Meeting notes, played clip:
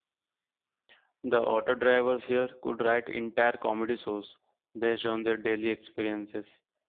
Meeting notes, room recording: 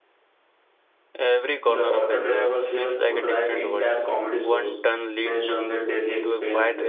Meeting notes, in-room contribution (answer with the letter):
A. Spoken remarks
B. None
A